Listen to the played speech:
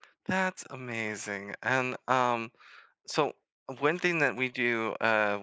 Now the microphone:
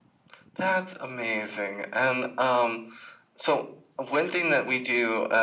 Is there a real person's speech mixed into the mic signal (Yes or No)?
No